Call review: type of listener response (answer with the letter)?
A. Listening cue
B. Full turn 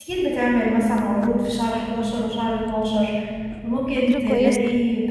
A